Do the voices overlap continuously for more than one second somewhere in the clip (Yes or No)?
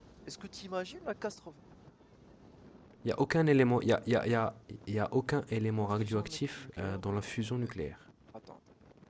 Yes